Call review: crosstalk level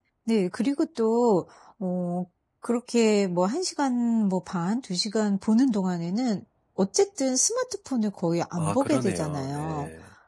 present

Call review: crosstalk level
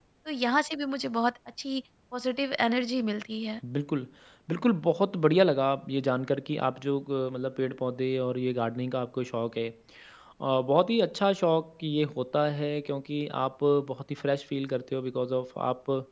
none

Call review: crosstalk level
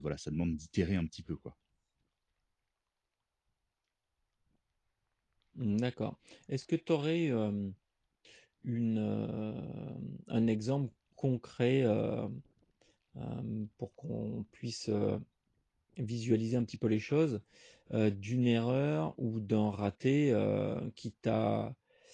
none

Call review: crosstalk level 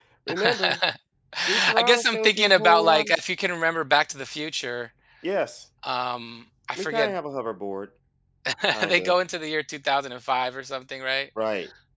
present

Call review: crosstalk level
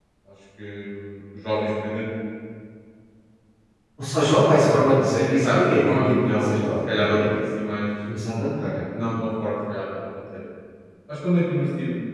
present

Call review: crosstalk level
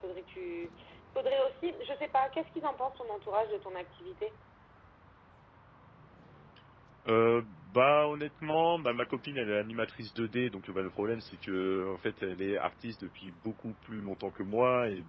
none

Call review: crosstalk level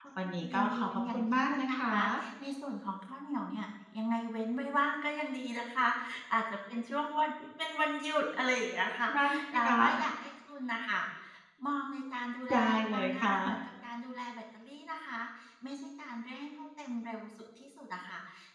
present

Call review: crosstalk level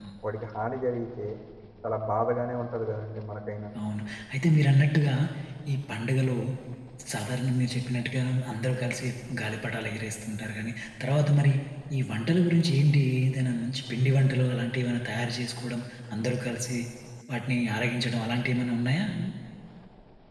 none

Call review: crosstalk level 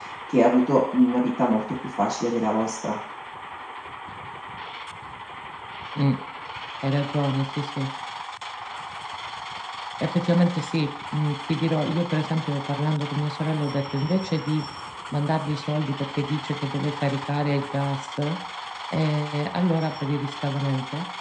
none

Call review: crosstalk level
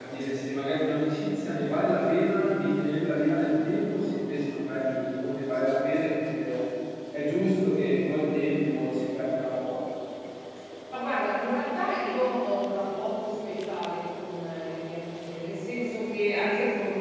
none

